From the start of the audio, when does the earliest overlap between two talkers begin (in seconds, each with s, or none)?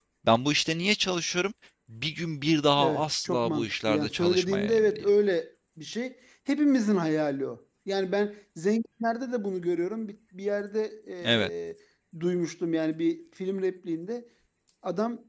2.8 s